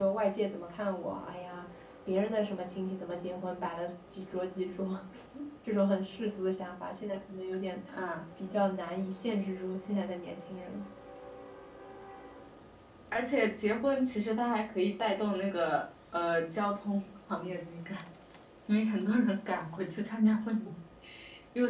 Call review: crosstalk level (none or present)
none